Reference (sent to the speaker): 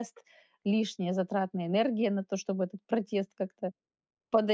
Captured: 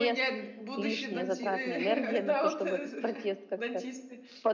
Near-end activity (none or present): present